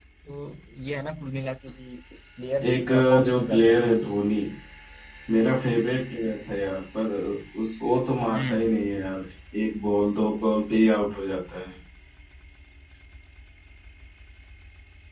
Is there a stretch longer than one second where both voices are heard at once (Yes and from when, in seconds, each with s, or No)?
Yes, from 2.6 s